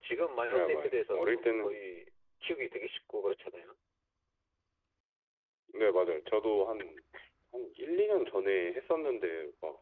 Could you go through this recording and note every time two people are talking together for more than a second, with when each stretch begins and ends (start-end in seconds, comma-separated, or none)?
0.5-1.8